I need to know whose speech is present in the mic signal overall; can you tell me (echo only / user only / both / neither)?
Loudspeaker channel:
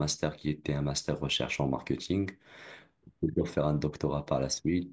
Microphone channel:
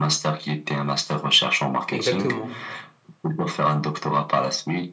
both